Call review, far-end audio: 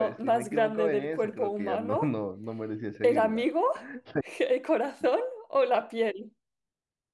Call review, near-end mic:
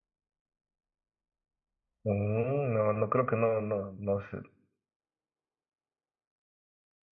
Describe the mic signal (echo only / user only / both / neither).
user only